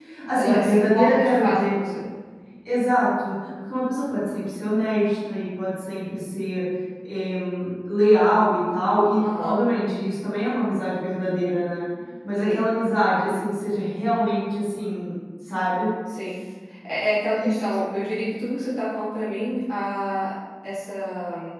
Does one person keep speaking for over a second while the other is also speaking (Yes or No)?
Yes